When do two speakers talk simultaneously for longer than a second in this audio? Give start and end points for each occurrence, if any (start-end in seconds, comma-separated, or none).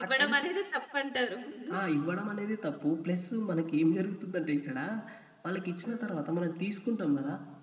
none